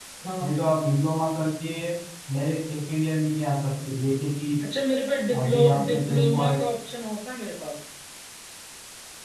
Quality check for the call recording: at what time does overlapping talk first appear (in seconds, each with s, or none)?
5.4 s